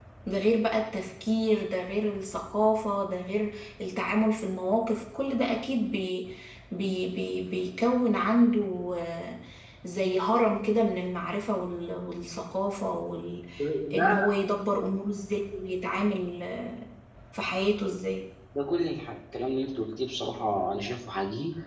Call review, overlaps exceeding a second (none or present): none